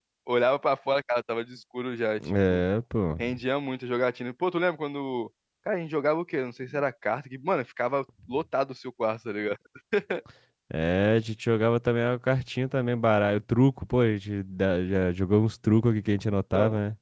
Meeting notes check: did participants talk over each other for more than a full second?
No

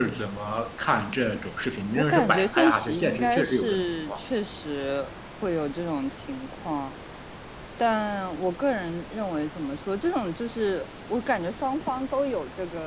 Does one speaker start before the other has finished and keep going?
Yes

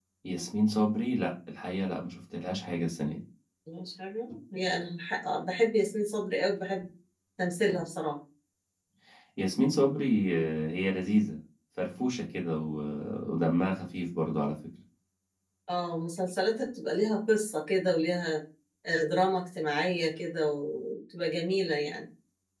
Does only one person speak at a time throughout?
Yes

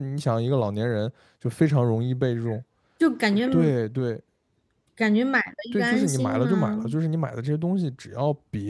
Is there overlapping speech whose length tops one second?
Yes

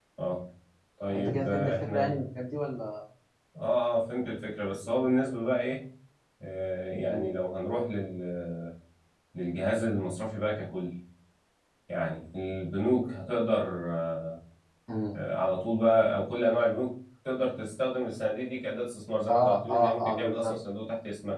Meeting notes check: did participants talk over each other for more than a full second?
Yes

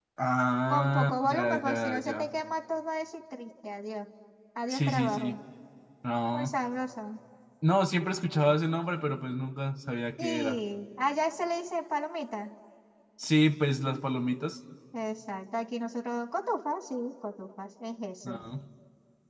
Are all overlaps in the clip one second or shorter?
No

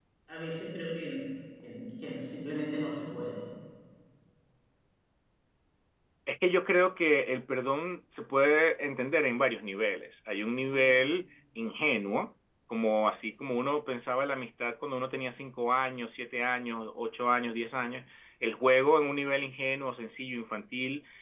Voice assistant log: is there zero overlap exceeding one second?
Yes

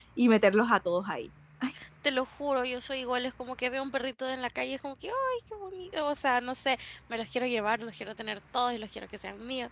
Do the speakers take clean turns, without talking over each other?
Yes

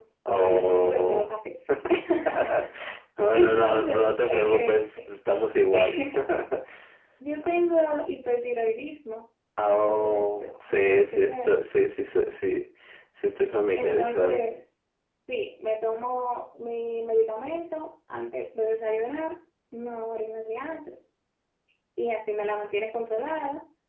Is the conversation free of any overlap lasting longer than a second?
No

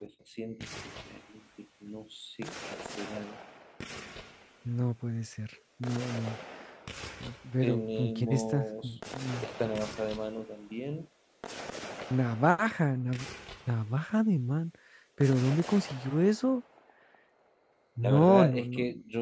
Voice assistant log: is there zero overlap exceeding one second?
No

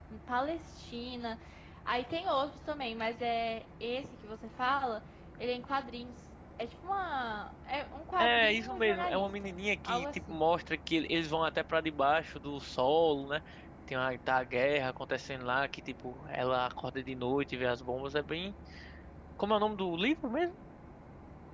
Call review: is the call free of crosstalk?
No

